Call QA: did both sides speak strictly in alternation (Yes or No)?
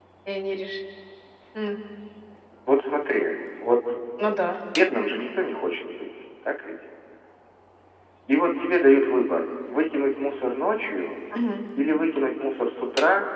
Yes